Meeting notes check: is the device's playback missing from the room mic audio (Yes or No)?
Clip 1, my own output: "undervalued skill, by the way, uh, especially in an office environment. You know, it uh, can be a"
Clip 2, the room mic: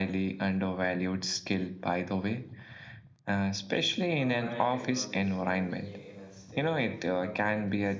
No